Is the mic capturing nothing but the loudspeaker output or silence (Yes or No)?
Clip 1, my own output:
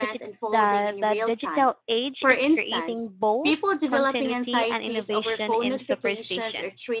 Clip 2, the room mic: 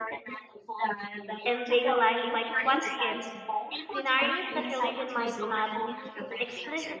No